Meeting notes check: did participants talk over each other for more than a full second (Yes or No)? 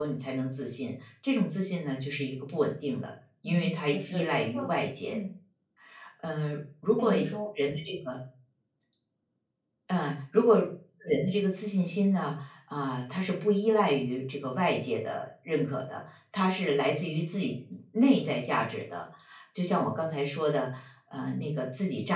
Yes